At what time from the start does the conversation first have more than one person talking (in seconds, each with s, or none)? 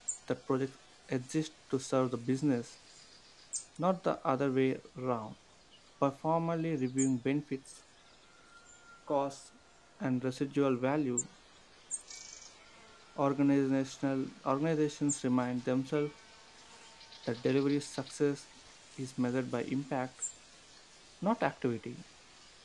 none